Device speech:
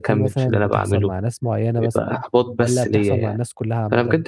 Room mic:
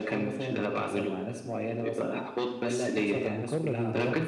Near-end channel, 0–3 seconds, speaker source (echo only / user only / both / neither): echo only